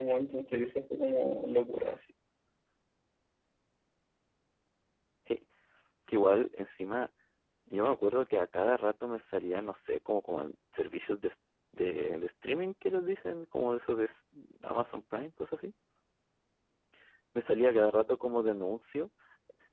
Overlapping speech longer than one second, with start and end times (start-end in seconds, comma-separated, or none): none